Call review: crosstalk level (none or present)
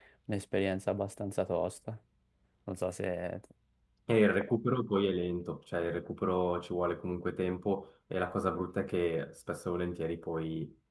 none